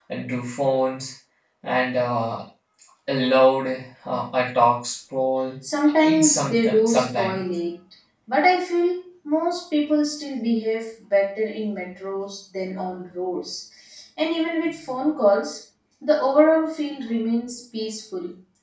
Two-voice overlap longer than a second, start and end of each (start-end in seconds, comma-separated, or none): 6.0-7.4